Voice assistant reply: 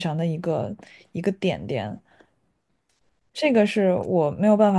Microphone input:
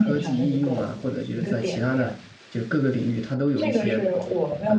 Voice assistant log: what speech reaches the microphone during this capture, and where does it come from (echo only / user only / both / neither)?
both